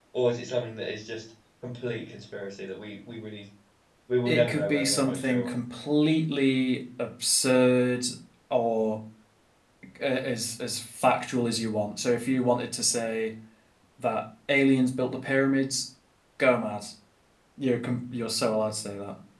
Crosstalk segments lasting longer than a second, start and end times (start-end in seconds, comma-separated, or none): 4.2-5.5